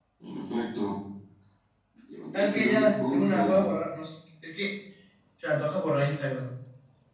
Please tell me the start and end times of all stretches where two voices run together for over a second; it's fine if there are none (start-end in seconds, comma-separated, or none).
2.3-3.7